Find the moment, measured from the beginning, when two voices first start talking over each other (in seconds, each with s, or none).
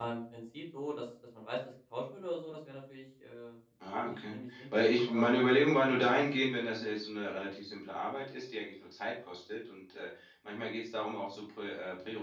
3.8 s